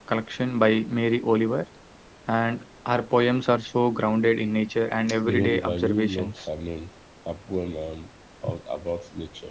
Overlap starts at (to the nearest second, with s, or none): 5 s